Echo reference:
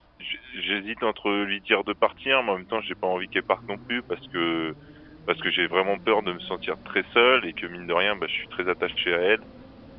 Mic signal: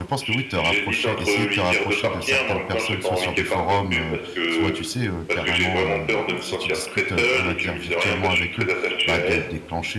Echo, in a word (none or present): present